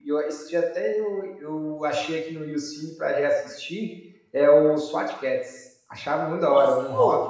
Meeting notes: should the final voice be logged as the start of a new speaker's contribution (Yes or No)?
Yes